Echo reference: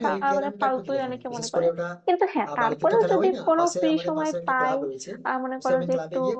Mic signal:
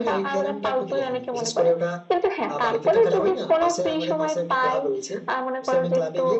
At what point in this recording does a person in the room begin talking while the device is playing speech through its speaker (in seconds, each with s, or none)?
none